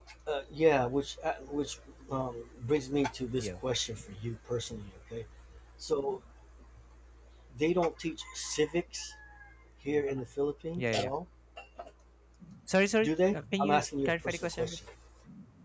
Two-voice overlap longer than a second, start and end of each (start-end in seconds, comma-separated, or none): 13.0-14.8